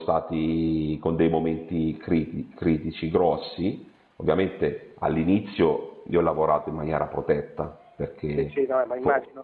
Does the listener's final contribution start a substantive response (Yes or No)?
Yes